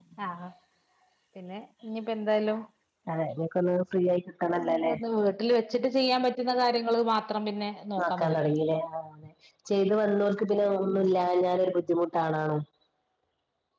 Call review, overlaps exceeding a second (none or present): none